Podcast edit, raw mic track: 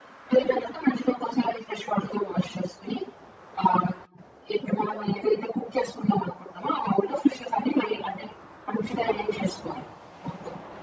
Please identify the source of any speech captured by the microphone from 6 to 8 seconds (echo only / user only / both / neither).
echo only